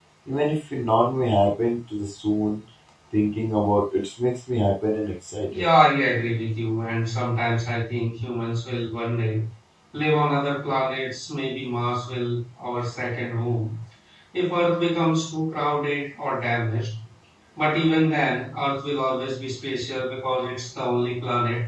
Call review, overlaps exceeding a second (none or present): none